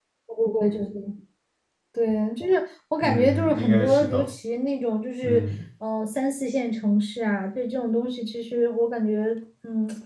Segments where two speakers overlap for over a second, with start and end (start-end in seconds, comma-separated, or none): 3.0-4.3